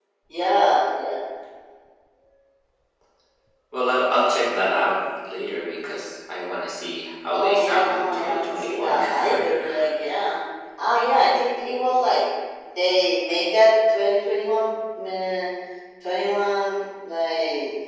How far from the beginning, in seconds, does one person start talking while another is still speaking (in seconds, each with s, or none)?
7.3 s